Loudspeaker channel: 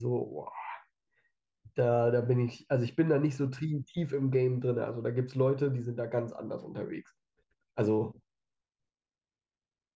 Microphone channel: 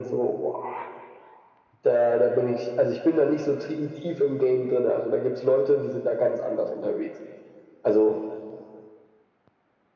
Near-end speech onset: none

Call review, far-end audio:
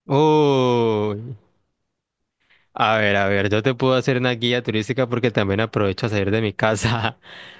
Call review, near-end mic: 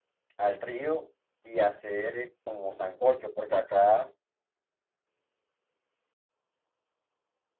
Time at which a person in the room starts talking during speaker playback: 0.4 s

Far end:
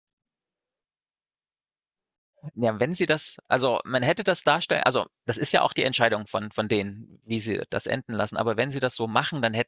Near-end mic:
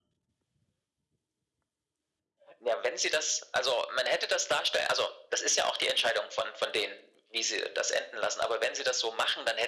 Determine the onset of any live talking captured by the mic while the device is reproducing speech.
none

